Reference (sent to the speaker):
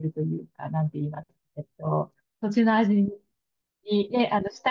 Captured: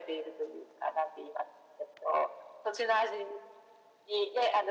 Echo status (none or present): present